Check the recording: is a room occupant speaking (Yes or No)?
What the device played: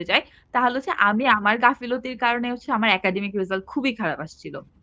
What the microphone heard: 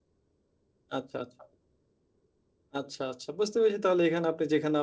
Yes